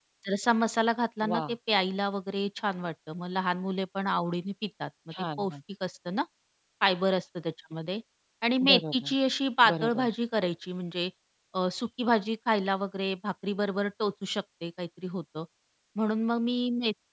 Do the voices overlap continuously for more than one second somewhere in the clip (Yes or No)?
No